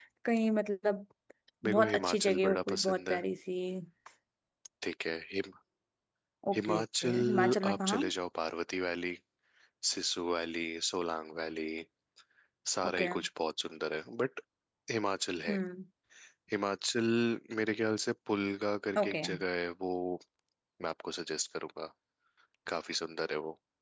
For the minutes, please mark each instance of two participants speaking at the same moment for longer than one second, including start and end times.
1.6-3.2, 6.5-8.0

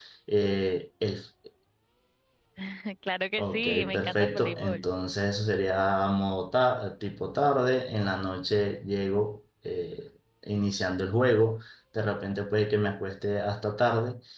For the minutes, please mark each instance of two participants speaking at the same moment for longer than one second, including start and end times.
3.4-4.9

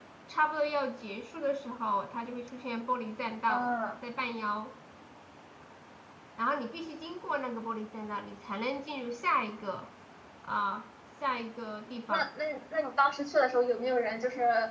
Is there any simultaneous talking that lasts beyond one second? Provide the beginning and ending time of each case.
none

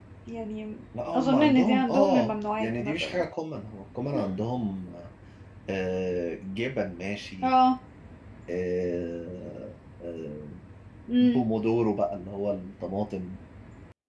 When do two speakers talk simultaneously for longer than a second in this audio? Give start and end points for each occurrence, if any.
1.2-3.2

